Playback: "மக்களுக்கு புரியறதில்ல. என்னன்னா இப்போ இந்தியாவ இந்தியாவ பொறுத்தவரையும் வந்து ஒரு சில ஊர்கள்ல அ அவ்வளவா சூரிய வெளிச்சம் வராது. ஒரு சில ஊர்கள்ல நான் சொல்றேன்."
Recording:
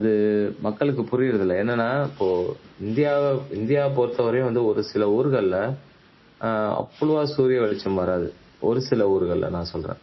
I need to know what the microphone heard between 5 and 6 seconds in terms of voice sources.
echo only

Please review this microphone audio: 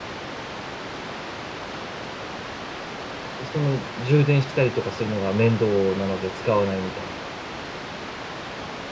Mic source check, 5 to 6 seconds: user only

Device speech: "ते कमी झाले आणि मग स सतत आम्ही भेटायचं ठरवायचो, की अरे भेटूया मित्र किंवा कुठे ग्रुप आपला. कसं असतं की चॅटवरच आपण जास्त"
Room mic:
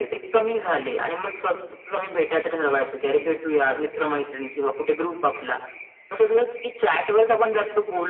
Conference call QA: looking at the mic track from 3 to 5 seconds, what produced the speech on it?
echo only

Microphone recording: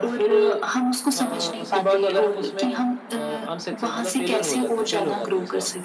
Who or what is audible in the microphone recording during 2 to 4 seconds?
echo only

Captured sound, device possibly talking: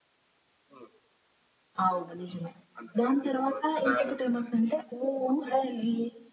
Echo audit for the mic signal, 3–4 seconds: echo only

